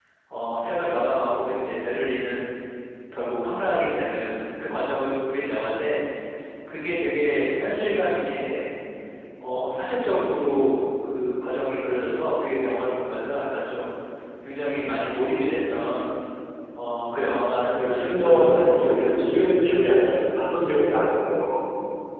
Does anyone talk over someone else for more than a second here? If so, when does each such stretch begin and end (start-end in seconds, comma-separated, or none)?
17.7-19.5